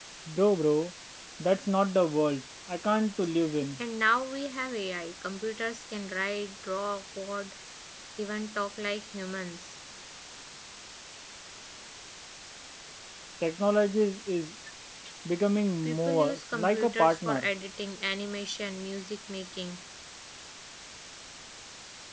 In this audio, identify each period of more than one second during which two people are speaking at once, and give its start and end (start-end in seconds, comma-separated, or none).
15.8-17.5